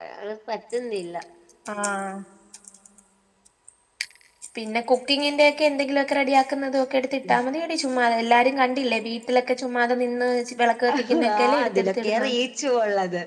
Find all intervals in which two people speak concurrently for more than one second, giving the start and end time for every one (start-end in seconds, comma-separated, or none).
10.9-12.3